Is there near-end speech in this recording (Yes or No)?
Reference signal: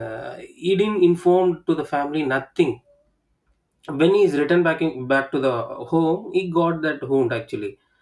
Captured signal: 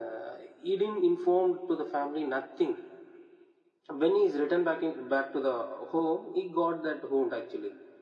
No